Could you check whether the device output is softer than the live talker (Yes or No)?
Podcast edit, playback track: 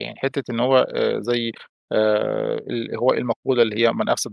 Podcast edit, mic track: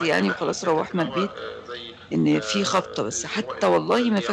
Yes